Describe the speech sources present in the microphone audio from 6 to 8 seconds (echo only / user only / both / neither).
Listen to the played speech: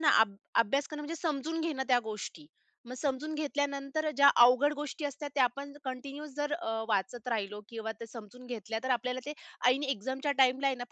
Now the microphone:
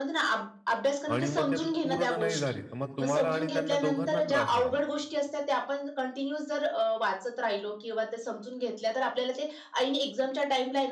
echo only